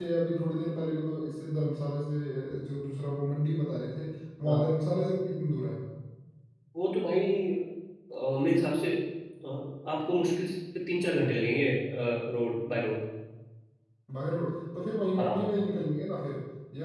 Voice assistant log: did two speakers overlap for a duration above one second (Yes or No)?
No